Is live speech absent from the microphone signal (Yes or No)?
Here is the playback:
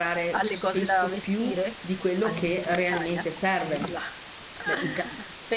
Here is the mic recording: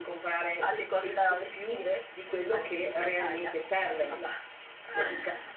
Yes